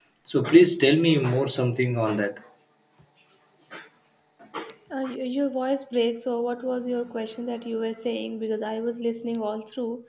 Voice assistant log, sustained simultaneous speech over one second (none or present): none